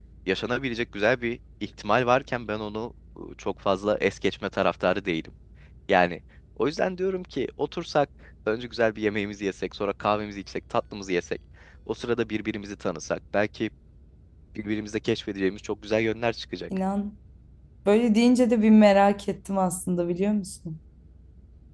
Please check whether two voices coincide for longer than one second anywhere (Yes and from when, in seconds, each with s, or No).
No